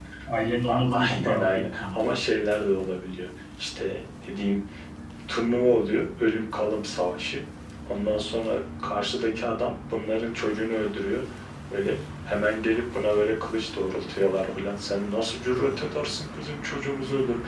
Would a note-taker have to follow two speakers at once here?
Yes, from 0.7 s

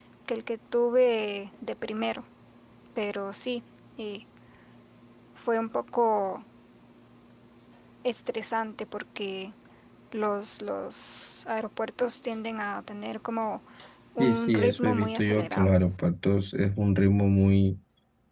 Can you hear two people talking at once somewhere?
Yes, from 14.2 s

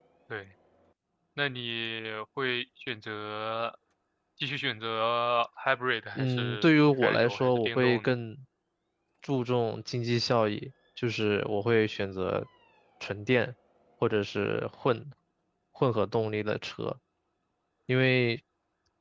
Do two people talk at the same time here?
Yes, from 6.2 s

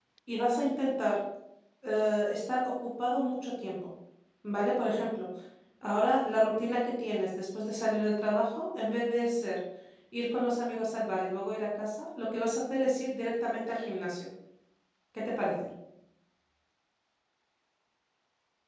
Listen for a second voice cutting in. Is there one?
No

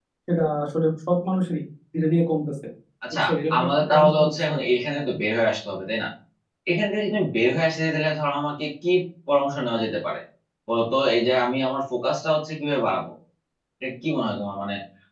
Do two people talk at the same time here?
Yes, from 3.1 s

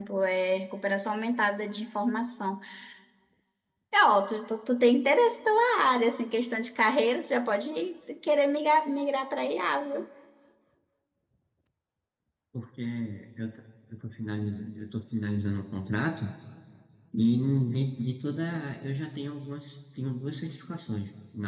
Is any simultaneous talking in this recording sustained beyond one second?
No

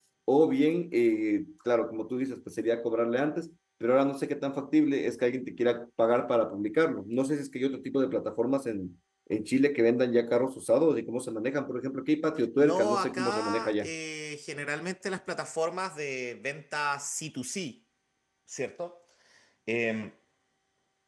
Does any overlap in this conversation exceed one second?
Yes, from 12.6 s

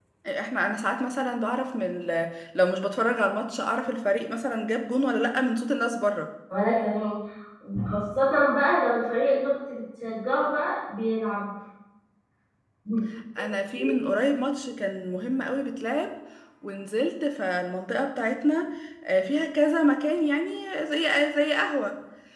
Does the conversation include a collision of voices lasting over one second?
No

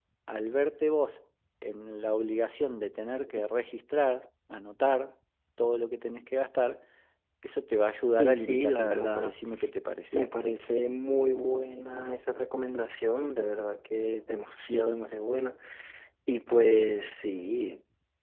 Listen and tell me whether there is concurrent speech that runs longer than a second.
Yes, from 8.2 s

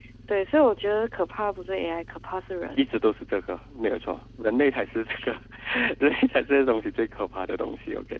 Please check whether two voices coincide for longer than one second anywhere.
No

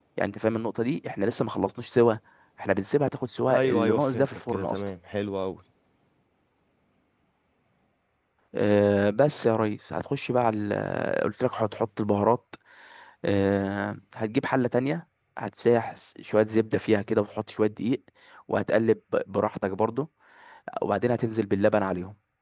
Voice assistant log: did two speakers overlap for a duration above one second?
Yes, from 3.5 s

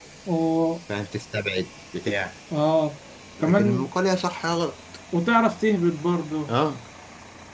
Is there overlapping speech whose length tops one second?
No

